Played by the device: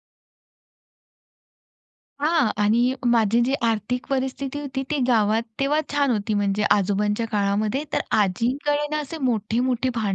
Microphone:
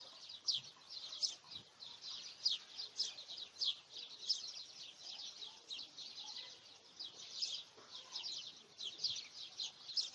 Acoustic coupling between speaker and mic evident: No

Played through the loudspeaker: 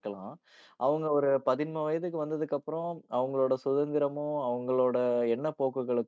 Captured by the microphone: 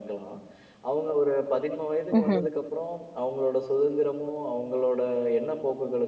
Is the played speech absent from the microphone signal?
No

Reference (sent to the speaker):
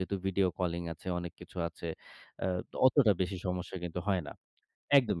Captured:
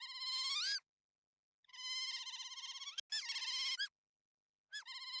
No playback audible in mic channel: Yes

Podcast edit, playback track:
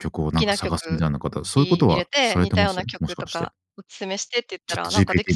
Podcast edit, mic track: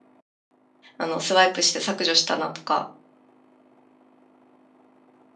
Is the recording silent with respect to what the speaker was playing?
Yes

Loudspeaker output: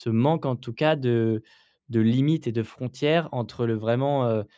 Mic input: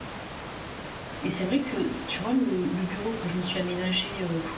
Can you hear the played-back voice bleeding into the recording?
No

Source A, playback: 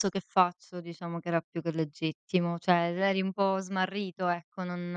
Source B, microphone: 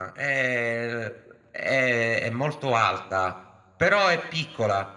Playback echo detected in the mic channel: No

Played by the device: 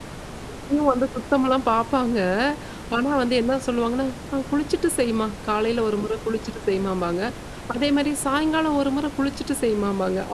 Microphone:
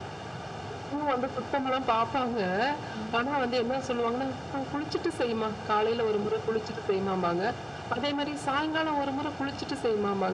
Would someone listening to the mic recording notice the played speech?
Yes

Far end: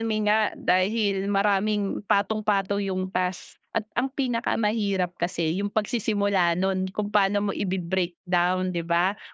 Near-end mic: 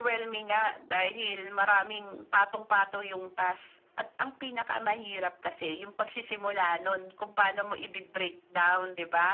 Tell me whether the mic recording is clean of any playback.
No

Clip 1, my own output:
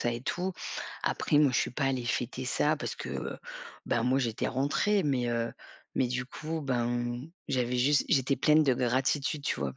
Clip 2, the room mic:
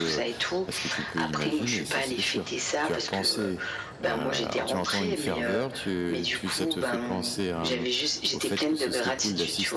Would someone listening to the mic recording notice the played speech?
Yes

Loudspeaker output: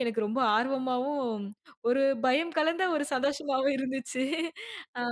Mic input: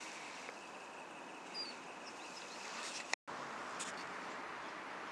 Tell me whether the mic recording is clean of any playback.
Yes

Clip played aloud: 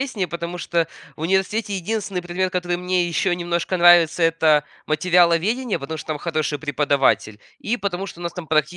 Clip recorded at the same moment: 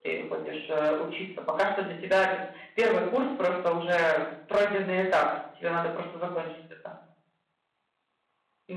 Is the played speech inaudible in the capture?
Yes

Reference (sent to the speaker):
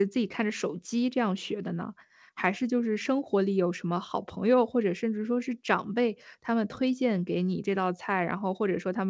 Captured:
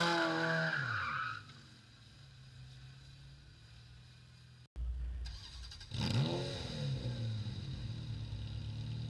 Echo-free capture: Yes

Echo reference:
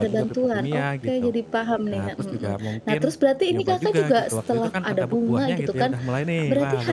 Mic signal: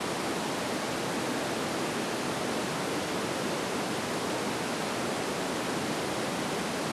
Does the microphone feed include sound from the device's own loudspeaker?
No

